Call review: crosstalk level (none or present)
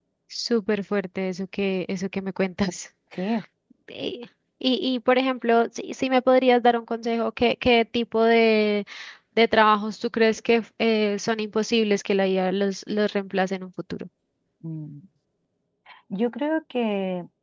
none